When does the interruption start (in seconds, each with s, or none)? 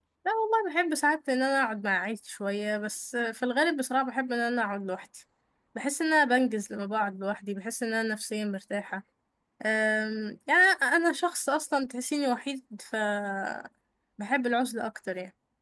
none